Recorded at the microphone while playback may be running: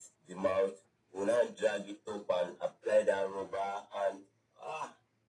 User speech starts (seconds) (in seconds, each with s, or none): none